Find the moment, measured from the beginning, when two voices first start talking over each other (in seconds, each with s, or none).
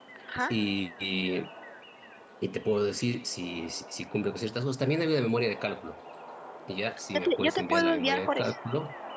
7.1 s